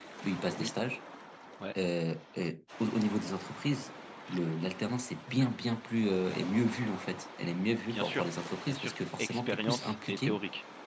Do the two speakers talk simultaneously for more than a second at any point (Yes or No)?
Yes